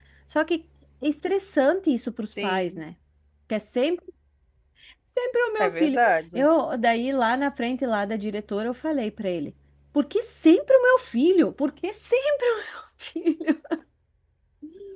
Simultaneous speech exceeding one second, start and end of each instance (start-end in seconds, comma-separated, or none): none